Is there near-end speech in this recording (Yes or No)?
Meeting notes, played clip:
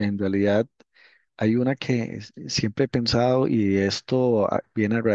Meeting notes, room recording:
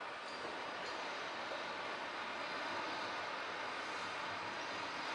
No